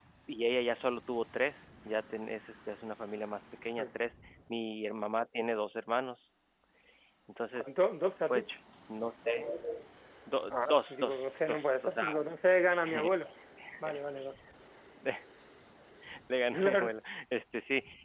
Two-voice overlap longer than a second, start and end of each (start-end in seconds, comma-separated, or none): 10.5-12.2